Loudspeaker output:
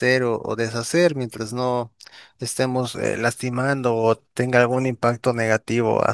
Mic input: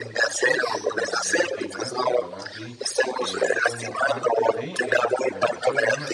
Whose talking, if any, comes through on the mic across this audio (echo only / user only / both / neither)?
both